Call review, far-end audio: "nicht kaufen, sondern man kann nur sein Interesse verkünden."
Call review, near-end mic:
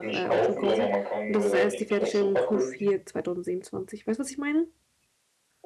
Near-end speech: present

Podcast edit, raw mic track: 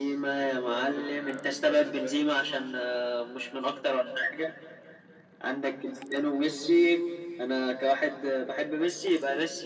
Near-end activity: present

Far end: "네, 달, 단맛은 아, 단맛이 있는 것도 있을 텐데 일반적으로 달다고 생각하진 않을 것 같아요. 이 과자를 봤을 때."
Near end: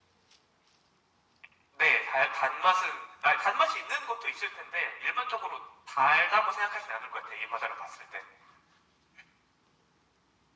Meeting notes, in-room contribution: none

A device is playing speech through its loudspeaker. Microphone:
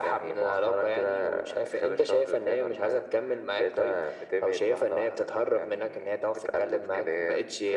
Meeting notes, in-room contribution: none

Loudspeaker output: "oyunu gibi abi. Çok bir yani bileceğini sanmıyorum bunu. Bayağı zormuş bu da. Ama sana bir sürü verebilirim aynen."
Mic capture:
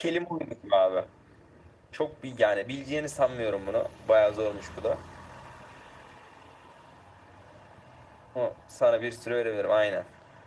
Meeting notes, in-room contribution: none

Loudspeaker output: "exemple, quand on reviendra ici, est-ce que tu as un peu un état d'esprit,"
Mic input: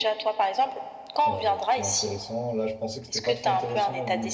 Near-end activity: present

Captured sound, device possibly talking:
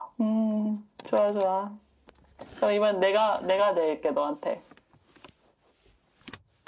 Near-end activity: none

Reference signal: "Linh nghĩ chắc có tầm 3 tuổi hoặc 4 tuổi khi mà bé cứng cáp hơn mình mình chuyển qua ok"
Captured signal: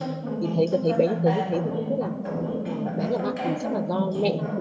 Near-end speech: present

